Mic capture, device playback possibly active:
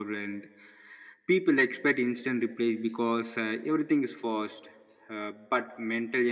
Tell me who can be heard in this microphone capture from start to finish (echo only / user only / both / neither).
echo only